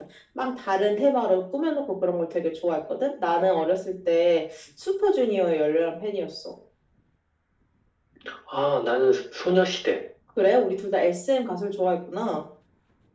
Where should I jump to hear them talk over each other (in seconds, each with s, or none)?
none